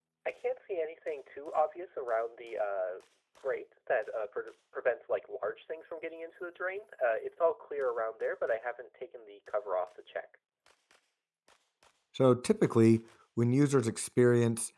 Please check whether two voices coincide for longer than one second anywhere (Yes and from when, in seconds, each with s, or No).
No